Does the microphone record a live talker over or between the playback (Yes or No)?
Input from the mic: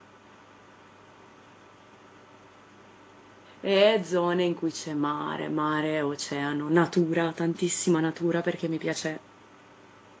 Yes